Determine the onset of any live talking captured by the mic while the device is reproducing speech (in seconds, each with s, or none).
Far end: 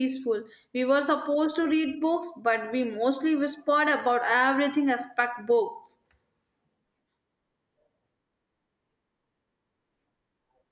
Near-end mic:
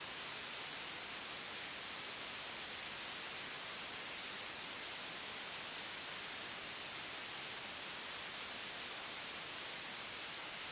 none